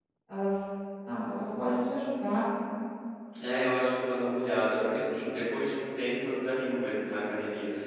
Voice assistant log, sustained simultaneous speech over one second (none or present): none